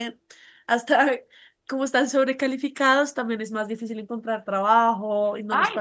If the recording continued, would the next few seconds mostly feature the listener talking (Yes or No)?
Yes